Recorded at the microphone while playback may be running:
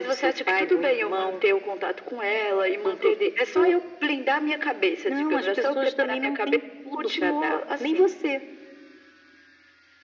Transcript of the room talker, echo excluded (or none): none